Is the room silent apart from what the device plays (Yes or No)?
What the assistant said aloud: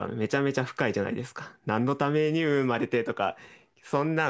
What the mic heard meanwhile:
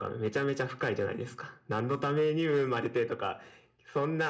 Yes